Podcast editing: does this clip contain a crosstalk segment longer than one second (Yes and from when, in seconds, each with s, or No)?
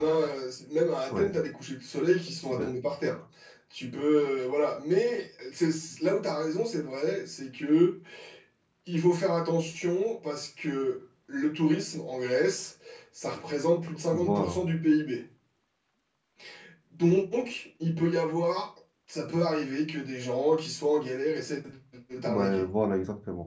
No